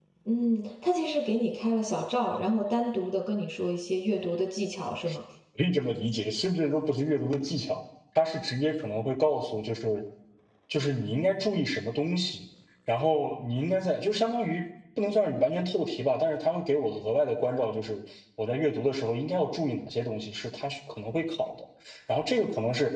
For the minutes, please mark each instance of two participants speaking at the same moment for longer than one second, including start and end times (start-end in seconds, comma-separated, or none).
none